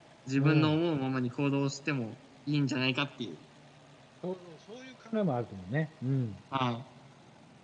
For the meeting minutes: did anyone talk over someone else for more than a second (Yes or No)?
No